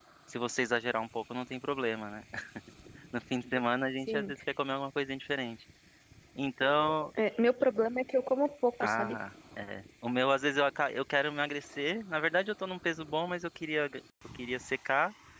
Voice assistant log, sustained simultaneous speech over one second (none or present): none